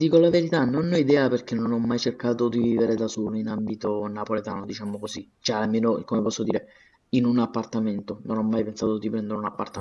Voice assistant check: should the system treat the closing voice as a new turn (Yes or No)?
Yes